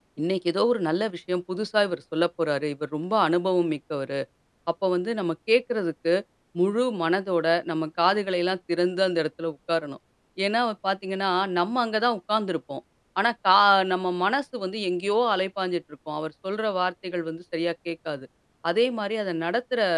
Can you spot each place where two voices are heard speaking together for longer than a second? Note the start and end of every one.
none

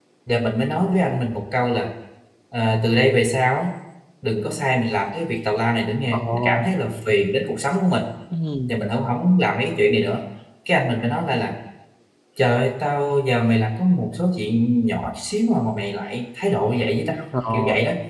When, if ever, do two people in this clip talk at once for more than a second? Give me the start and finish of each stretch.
none

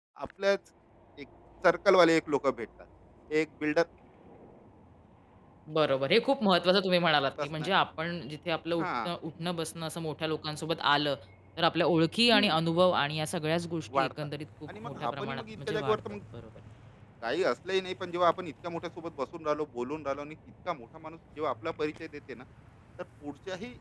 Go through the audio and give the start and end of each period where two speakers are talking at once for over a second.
14.7-16.0

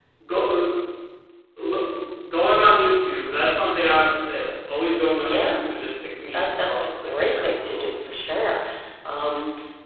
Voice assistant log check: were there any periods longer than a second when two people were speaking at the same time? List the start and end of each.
6.3-7.9

